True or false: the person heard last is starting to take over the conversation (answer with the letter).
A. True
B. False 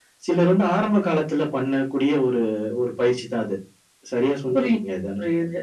A